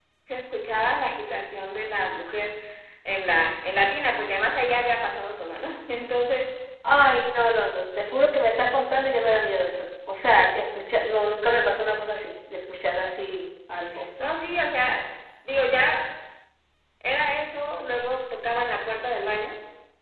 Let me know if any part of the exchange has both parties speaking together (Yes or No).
No